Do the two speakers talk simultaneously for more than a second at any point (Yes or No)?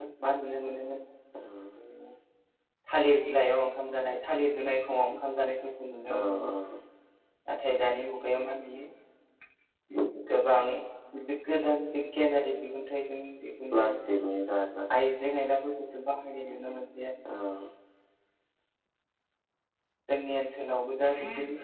No